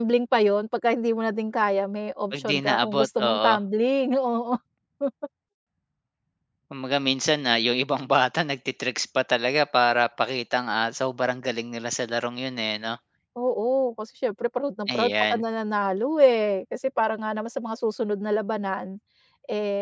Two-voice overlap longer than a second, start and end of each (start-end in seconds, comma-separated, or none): 2.3-3.5